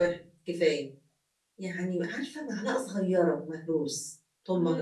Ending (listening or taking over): taking over